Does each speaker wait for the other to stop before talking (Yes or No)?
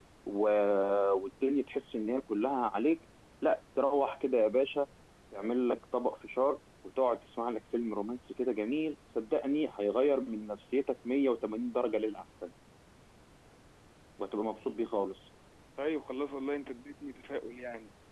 Yes